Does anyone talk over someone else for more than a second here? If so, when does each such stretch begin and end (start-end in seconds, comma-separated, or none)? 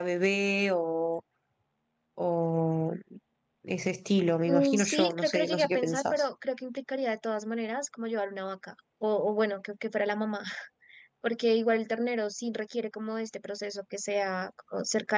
4.5-6.2